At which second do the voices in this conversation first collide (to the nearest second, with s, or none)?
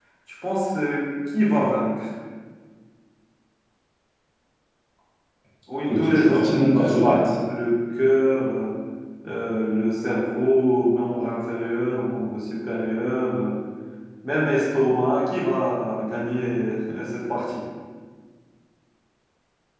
6 s